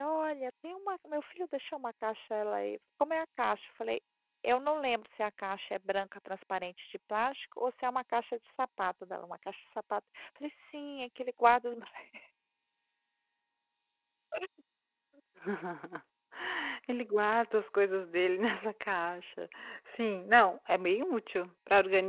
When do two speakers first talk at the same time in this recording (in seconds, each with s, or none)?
none